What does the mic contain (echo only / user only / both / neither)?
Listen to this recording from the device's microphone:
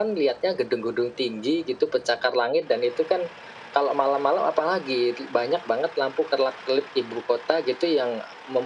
echo only